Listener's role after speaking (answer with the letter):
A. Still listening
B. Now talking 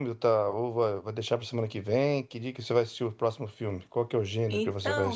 B